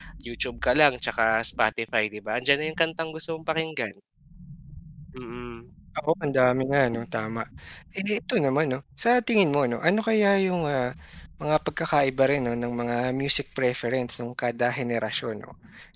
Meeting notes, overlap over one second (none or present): none